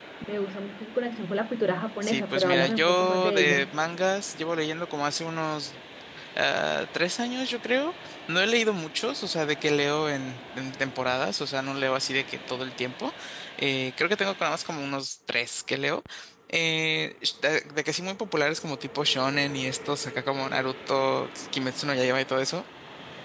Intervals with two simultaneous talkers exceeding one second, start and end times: 2.0-3.7

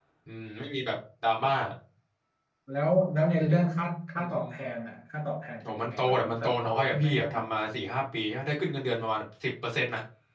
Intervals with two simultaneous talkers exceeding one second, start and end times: 5.7-7.5

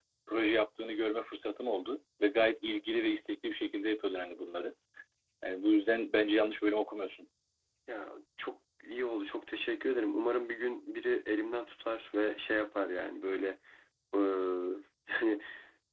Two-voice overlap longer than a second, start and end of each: none

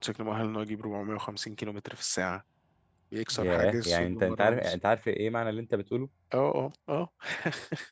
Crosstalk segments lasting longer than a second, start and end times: 3.3-4.8

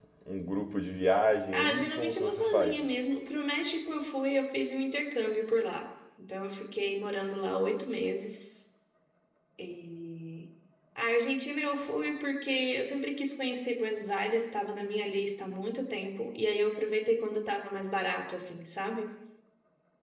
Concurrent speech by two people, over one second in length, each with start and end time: 1.5-2.8

